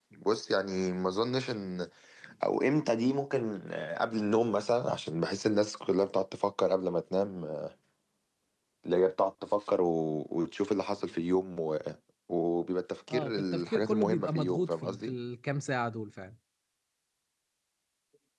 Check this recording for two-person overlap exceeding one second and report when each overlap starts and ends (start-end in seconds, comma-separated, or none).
13.1-15.1